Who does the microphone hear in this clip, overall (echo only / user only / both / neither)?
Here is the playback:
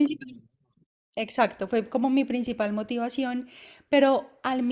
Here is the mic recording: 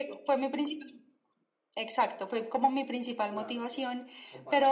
both